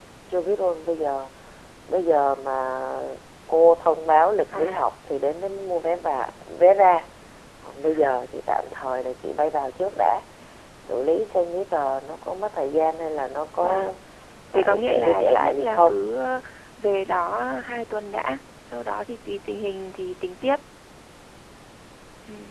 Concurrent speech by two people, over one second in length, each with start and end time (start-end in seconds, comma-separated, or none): 14.5-16.0